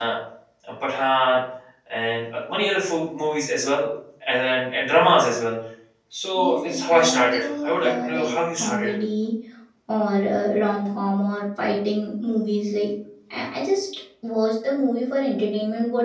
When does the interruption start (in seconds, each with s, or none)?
6.3 s